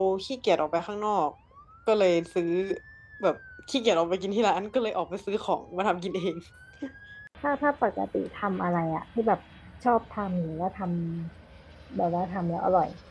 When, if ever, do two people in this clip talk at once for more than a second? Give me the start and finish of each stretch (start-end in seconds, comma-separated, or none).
none